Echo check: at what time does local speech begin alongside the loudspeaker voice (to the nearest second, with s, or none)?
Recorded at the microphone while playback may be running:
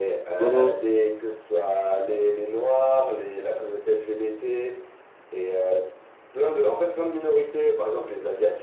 0 s